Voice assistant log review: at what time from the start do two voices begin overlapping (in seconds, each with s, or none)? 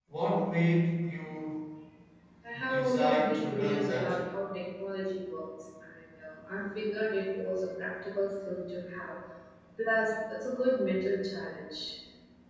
2.7 s